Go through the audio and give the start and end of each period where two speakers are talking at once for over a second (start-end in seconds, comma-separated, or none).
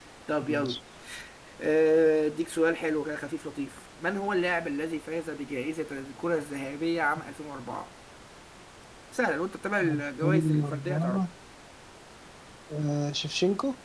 9.8-11.2